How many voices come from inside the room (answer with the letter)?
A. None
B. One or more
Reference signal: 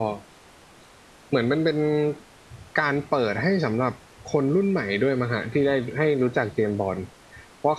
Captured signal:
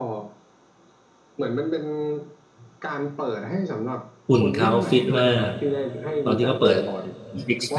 B